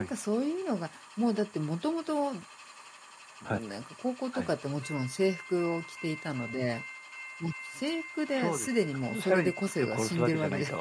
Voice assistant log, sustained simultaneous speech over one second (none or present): present